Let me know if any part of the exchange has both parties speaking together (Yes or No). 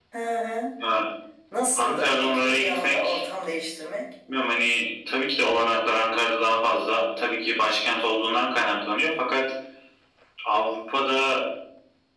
Yes